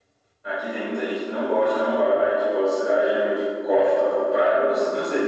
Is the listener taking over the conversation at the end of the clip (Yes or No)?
No